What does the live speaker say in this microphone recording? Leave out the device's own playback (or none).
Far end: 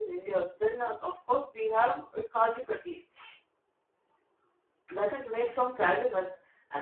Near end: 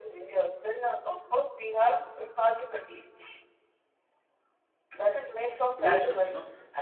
wholesome. You know